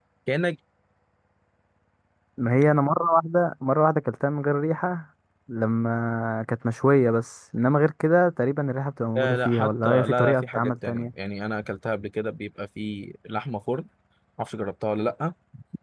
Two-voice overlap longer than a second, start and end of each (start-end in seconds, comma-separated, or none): 9.2-11.1